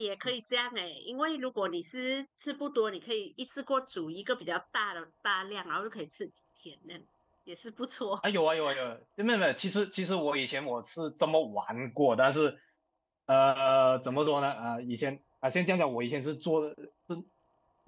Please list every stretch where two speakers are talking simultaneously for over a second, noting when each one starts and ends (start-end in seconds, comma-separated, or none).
none